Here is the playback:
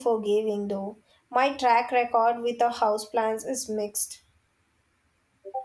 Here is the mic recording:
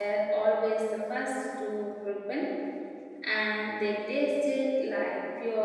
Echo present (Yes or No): No